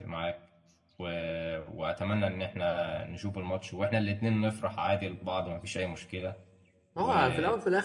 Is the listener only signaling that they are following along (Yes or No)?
No